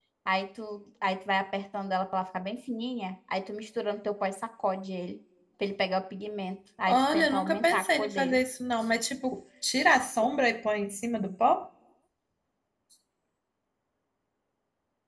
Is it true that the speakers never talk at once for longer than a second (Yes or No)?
No